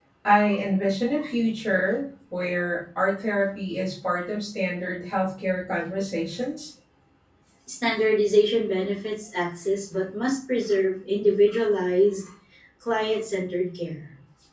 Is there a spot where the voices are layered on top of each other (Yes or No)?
No